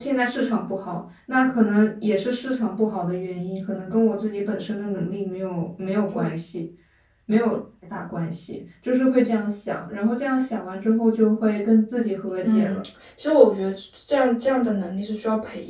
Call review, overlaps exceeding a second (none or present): none